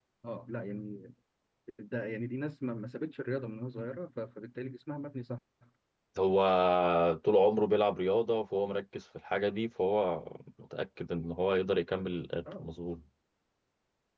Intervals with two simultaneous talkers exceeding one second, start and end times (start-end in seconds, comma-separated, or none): none